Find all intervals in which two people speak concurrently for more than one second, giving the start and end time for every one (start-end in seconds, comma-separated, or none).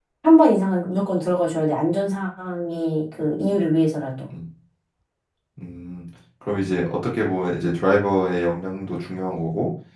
none